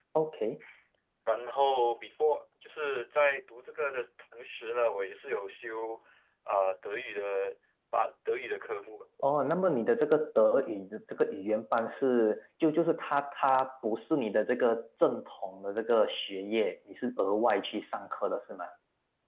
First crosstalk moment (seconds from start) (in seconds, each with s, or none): none